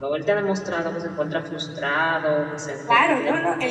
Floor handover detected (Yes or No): Yes